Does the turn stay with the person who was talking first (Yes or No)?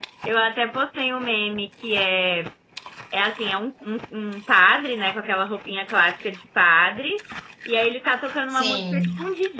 Yes